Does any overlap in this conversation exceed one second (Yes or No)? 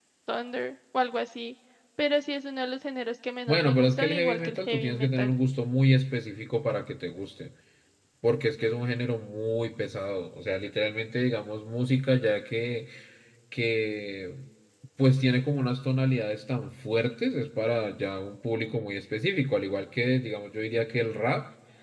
Yes